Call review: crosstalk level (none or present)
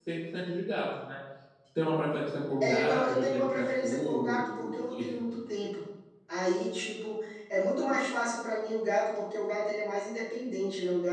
present